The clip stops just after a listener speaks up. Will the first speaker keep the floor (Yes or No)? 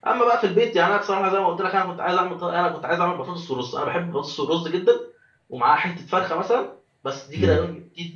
Yes